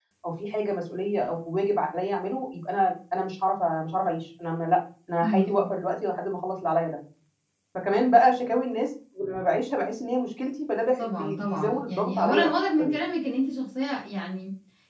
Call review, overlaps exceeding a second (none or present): present